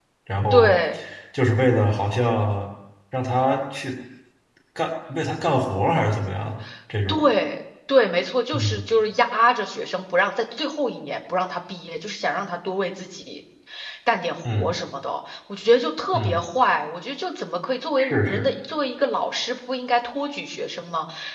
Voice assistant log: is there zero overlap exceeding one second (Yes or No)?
Yes